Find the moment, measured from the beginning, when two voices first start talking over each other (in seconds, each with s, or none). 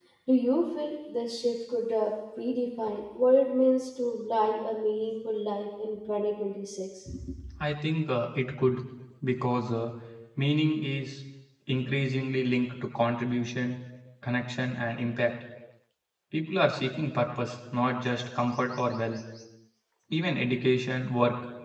none